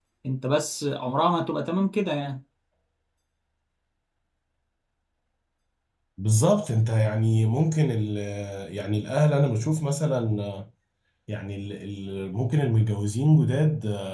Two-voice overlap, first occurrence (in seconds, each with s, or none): none